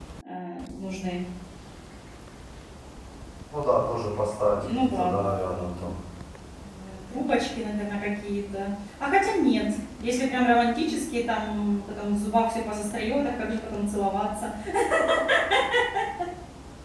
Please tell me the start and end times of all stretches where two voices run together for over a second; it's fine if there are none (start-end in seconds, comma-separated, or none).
4.6-5.9